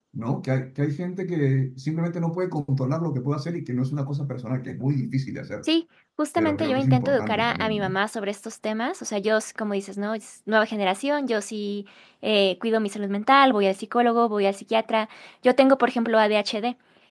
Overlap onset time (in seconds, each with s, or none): 6.4 s